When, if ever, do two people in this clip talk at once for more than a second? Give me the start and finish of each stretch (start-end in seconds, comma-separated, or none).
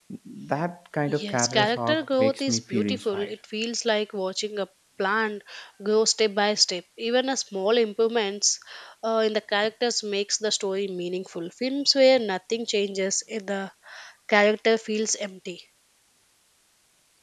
1.1-3.3